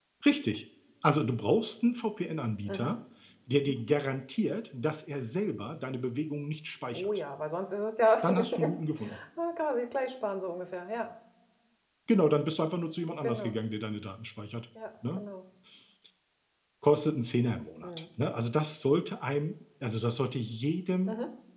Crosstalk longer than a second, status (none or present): none